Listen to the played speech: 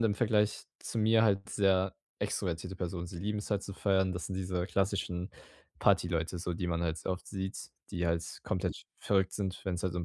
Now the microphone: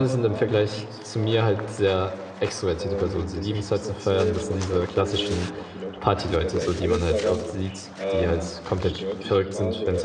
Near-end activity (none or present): present